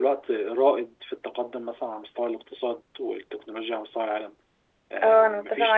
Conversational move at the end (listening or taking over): taking over